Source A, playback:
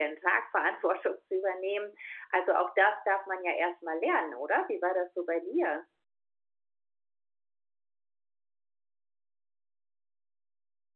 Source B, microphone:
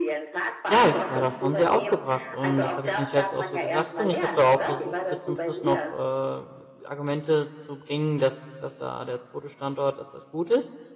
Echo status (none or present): present